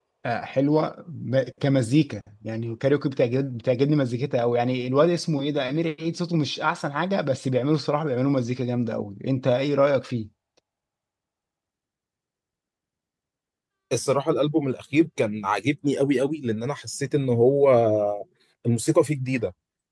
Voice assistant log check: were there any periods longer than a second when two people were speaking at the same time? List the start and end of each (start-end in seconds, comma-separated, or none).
none